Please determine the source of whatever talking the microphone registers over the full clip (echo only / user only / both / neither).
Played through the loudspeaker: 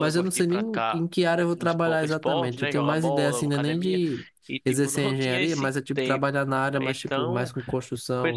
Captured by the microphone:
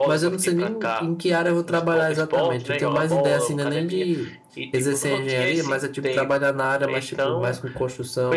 echo only